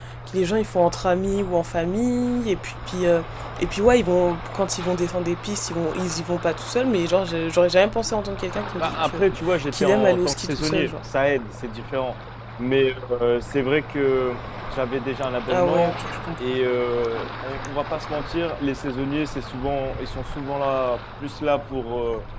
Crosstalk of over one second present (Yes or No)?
Yes